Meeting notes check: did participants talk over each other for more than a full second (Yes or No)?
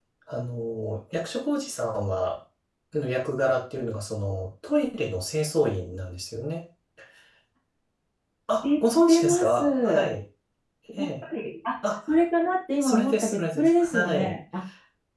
Yes